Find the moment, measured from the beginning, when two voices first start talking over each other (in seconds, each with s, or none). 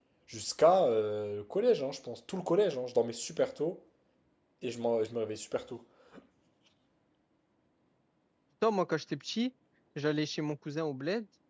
none